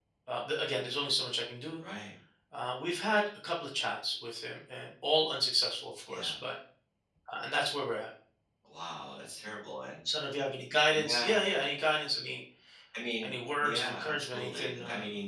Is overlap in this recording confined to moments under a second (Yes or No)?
No